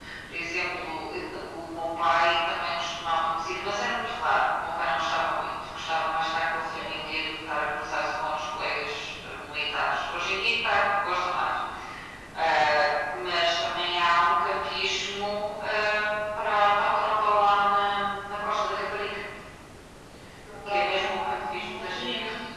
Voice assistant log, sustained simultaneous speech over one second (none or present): present